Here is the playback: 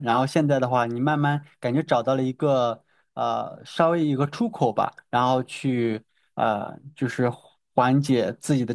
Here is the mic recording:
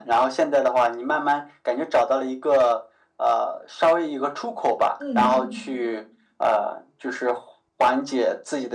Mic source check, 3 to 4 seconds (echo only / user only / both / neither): echo only